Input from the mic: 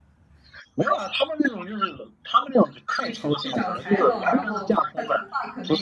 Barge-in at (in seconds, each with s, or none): 3.0 s